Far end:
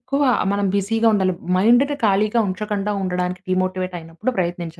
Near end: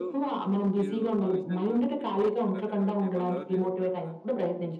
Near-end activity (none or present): present